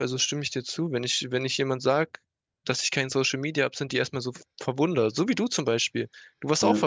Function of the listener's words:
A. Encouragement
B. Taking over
A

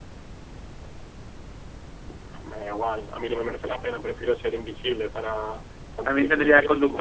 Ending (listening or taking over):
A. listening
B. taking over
B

